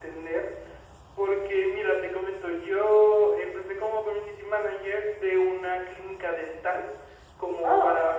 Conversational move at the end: listening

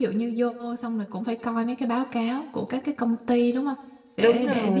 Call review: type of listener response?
listening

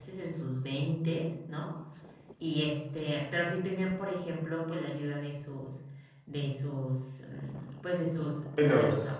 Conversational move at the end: listening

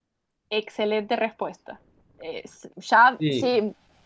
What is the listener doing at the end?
listening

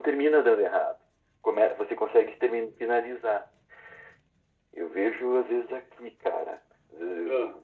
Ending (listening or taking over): listening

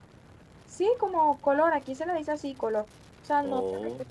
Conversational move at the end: listening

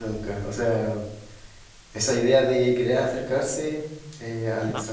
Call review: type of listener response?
listening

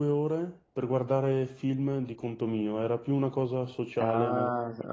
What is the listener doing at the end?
taking over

